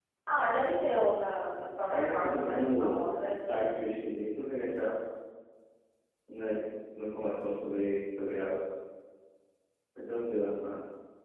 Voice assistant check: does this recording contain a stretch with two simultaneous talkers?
Yes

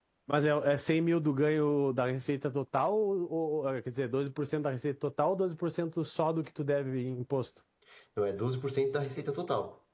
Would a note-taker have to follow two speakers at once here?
No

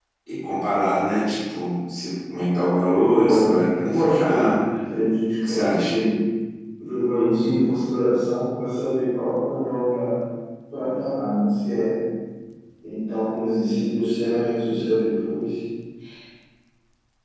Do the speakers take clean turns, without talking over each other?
No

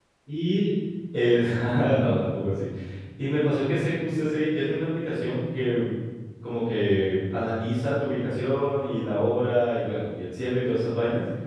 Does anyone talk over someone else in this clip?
No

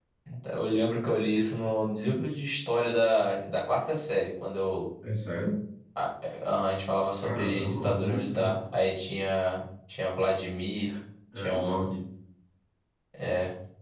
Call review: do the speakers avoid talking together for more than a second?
No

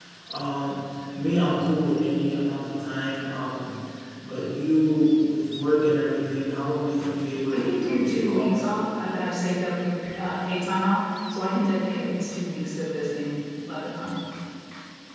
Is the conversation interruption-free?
No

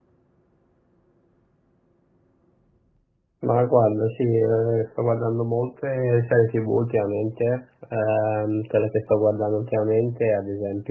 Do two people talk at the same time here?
No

